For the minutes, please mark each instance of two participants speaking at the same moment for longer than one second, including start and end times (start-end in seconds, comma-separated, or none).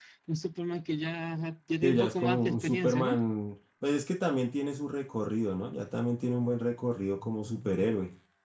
1.8-3.2